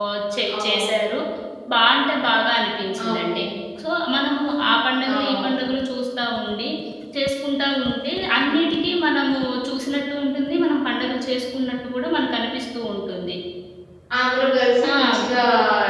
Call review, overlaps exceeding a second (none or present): none